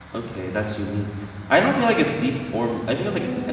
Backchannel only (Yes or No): No